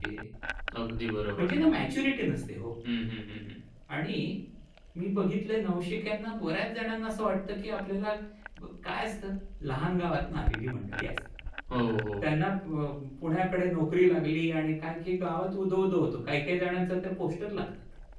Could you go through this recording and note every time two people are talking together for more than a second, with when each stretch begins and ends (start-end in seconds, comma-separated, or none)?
none